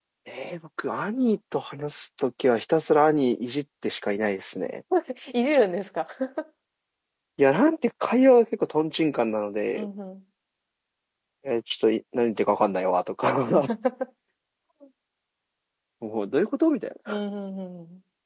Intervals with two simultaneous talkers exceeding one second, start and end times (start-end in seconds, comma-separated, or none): none